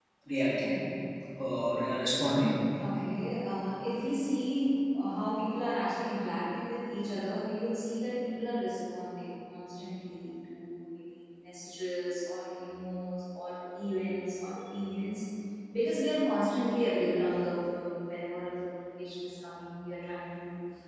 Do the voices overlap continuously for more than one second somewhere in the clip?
No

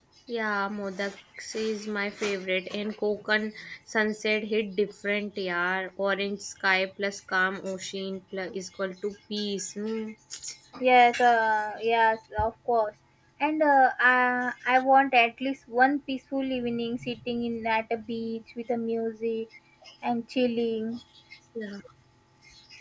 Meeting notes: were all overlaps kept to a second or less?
Yes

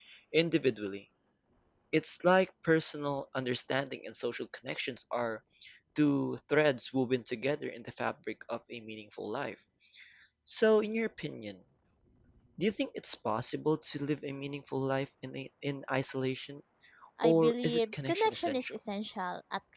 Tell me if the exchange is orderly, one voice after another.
No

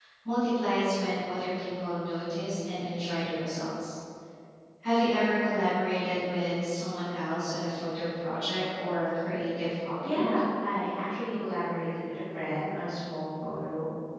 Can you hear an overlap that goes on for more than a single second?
No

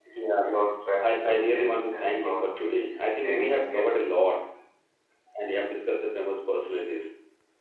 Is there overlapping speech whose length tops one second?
Yes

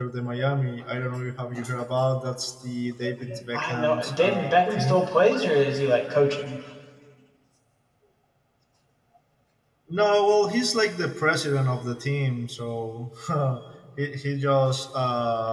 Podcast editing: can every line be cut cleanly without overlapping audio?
No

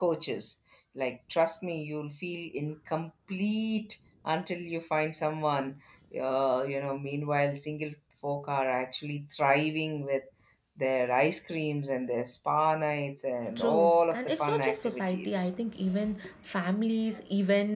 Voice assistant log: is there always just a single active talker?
No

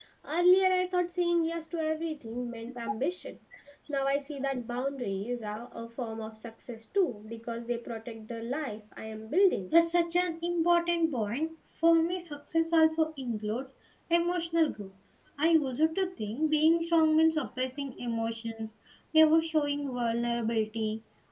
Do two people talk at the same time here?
No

